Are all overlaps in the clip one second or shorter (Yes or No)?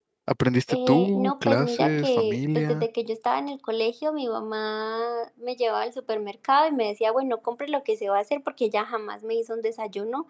No